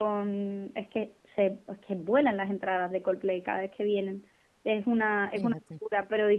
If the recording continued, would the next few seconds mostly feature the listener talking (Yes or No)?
No